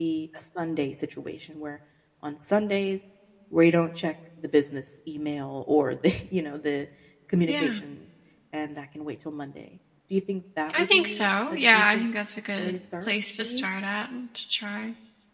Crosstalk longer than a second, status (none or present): present